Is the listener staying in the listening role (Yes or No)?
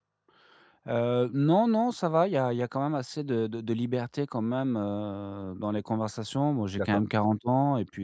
Yes